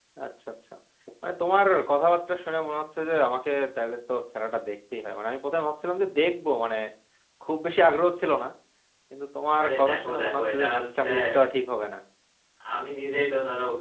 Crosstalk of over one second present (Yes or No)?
Yes